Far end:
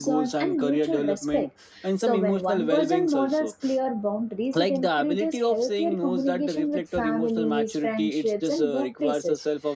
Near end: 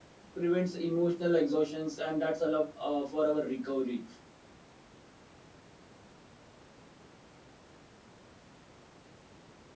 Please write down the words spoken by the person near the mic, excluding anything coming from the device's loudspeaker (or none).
prevents emotional exhaustions and that's allow uh, for our recovery